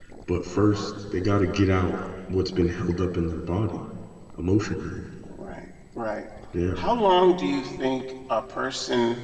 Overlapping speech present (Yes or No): No